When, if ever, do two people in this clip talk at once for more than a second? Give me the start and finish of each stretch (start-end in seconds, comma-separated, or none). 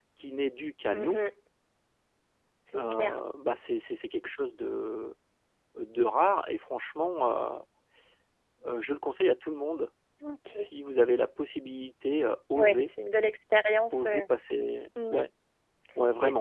none